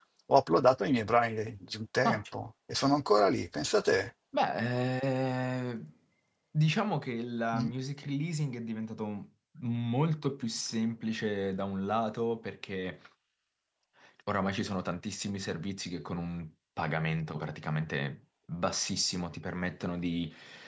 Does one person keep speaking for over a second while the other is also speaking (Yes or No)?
No